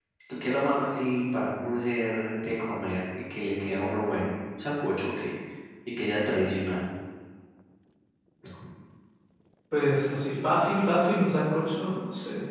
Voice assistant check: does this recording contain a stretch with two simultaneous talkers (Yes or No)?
No